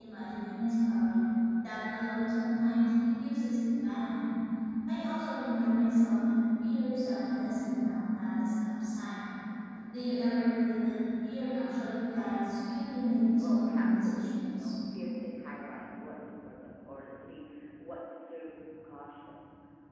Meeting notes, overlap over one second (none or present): present